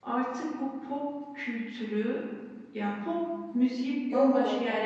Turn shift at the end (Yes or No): No